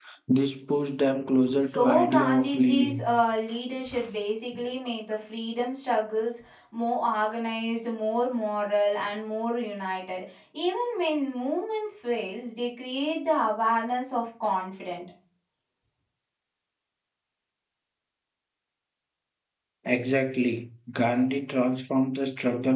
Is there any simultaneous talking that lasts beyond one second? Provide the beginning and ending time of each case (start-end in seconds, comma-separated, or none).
1.6-3.1